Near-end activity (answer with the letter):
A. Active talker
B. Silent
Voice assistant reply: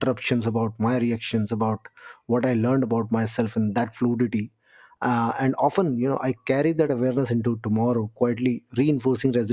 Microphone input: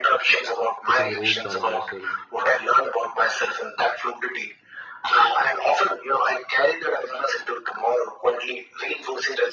A